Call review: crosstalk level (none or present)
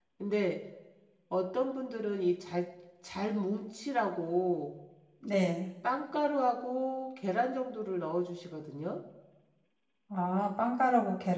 none